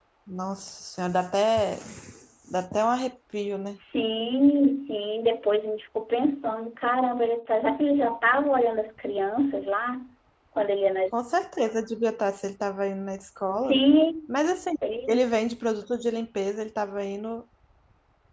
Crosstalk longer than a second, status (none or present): none